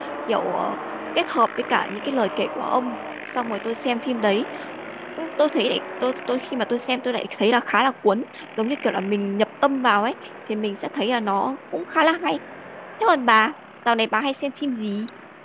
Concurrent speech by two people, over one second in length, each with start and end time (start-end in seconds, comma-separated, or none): none